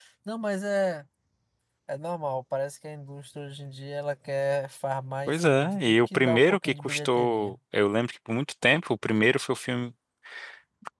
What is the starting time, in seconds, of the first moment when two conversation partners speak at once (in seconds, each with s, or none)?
5.3 s